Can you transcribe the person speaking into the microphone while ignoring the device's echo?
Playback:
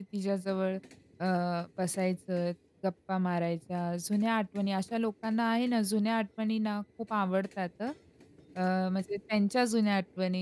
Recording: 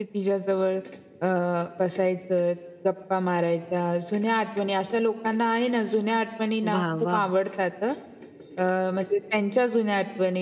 वाह! वाह!

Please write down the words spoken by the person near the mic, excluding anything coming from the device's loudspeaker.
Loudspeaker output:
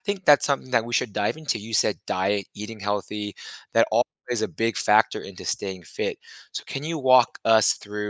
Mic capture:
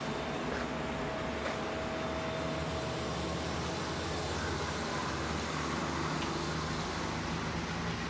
none

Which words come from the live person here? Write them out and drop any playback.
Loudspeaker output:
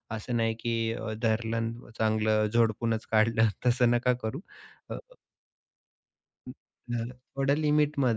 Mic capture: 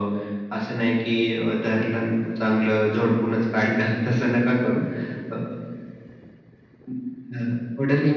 none

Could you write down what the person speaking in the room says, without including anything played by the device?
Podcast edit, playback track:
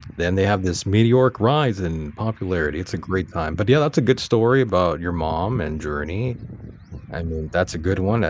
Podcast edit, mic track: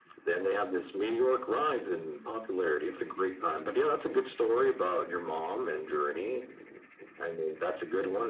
none

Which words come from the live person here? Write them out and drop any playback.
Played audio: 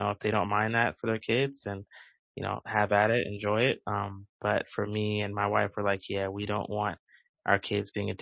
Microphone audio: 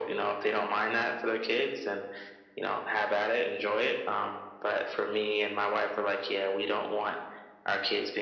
none

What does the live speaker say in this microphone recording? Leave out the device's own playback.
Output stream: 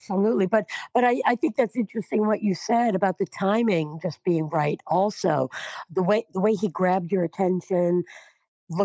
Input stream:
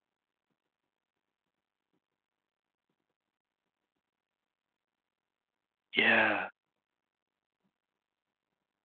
Yeah,

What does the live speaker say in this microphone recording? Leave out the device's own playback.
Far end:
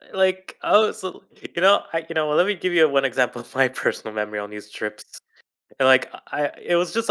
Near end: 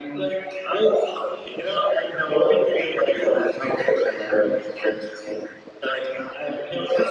none

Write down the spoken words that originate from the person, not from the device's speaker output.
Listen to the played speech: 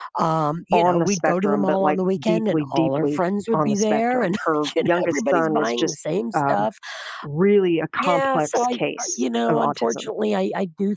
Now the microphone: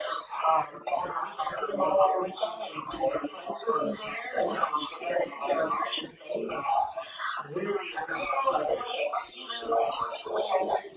none

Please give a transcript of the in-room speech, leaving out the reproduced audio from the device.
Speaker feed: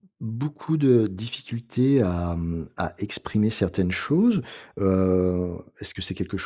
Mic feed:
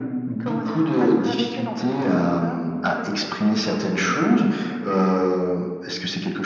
comment dire? Pas nous rabaisser, mais on peut le prendre comme ça. Des fois, ça peut être difficile à encaisser,

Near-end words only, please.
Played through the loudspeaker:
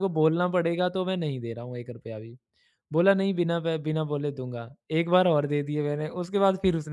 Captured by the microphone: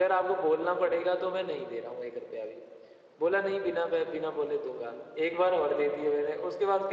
none

